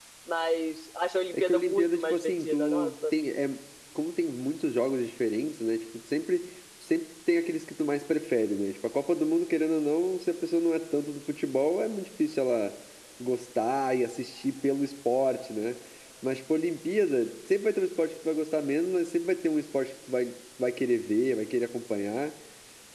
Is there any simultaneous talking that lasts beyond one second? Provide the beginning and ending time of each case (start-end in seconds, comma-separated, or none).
1.3-3.1